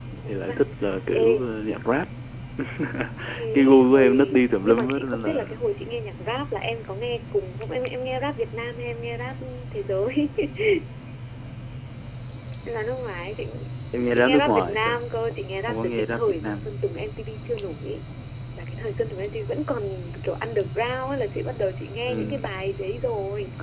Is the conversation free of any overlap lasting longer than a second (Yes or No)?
No